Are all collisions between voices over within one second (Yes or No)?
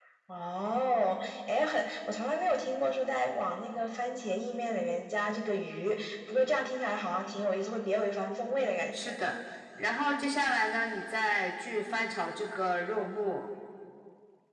Yes